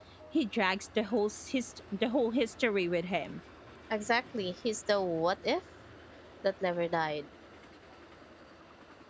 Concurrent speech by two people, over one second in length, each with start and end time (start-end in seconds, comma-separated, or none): none